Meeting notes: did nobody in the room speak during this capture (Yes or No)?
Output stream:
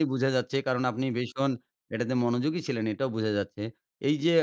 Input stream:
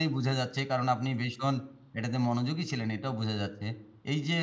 Yes